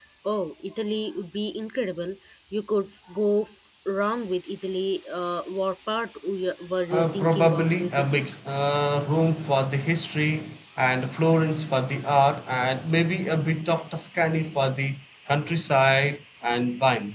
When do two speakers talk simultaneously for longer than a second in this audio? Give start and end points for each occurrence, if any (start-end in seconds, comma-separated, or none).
6.9-8.2